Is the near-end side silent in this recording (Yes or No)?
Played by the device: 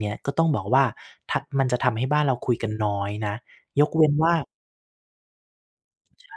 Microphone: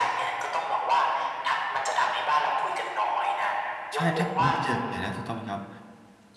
No